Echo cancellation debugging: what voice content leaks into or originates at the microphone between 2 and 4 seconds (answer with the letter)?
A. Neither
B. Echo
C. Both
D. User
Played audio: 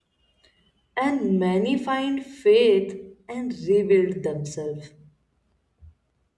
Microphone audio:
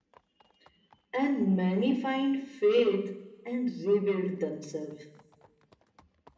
B